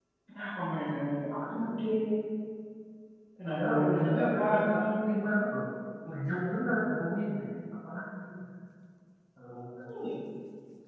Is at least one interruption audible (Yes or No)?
Yes